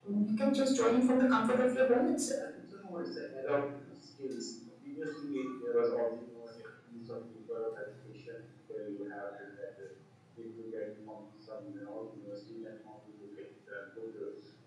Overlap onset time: none

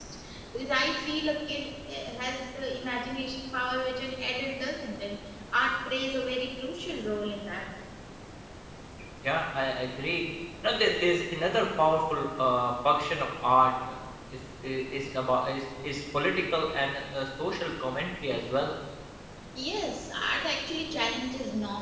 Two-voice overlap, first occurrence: none

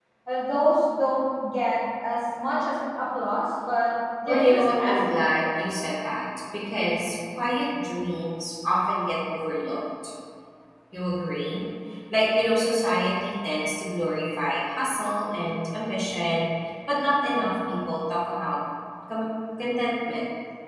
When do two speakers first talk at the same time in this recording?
4 s

